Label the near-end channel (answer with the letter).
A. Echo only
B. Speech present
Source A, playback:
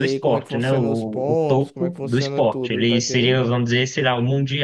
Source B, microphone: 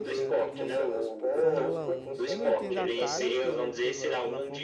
B